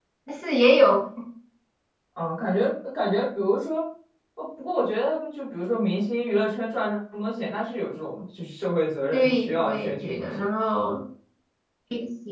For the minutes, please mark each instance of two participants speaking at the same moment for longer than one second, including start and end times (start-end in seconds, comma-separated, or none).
9.1-10.3